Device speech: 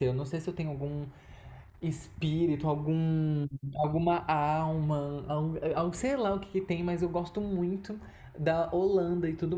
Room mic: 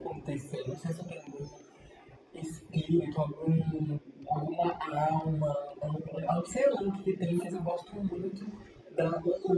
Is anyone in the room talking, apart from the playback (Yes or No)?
Yes